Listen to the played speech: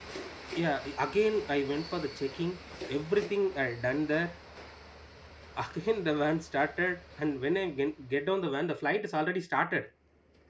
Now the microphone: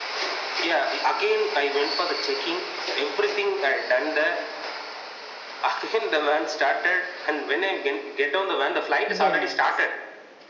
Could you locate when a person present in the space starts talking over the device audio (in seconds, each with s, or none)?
9.1 s